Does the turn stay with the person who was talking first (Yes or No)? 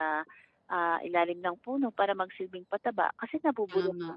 No